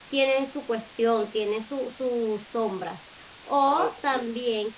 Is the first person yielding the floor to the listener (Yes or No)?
No